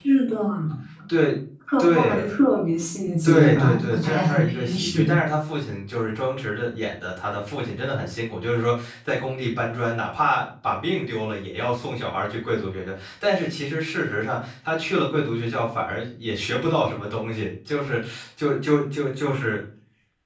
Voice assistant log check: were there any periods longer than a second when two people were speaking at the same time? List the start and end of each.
3.2-5.2

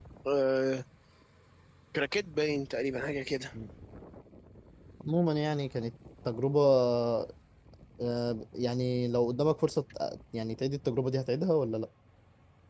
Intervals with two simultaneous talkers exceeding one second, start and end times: none

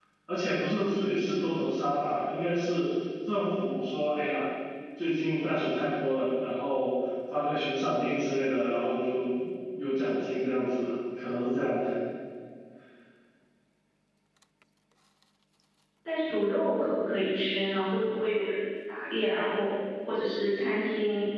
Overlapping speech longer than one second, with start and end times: none

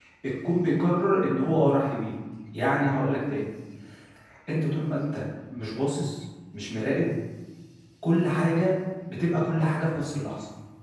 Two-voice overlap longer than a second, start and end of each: none

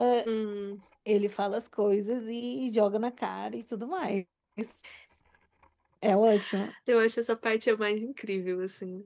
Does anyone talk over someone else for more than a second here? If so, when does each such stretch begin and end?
none

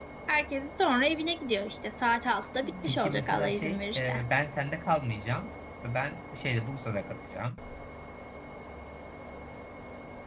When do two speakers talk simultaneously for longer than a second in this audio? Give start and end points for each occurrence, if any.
2.9-4.1

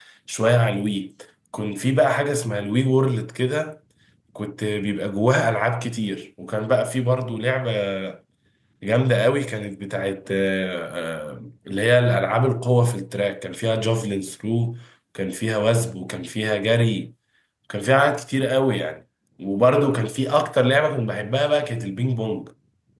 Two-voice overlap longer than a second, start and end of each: none

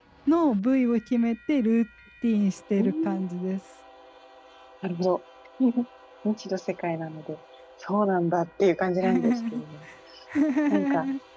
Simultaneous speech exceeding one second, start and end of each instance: none

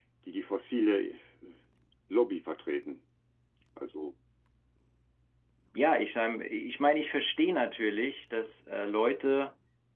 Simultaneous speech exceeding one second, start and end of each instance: none

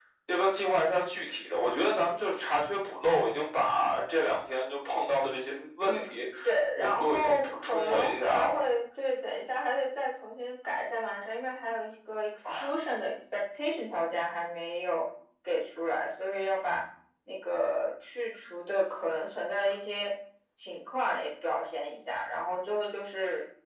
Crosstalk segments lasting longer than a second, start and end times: 6.8-8.6

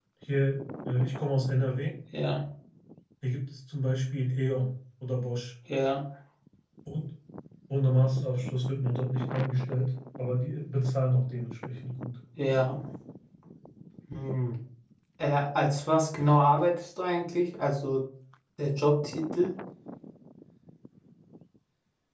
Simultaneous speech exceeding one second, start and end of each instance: none

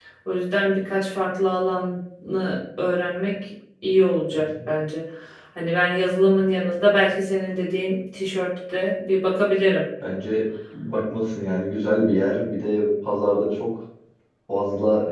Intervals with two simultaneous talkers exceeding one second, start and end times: none

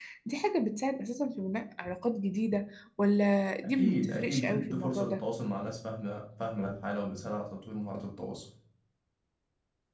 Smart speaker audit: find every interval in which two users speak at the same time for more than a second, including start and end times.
3.6-5.2

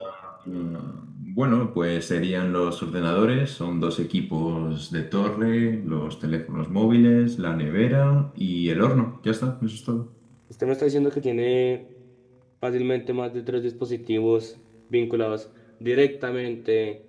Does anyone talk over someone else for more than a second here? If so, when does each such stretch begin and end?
none

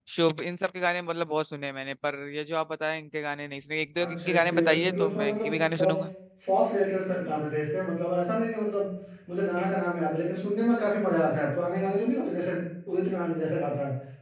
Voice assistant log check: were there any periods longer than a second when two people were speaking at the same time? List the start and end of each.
4.0-5.9

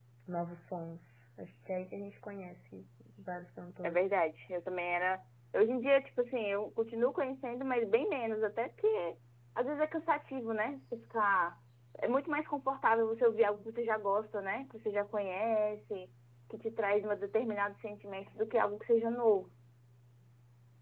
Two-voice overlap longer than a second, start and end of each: none

